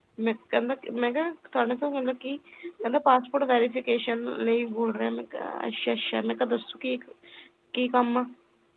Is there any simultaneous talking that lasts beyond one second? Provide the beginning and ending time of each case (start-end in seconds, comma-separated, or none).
none